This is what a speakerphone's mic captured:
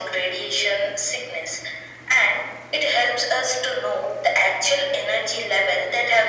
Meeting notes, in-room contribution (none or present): none